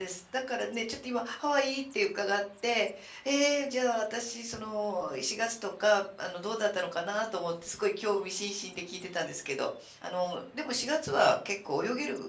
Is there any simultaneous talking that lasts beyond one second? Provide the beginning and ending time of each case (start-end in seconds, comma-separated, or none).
none